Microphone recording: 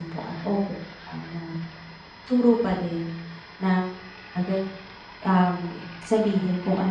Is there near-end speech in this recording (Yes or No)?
Yes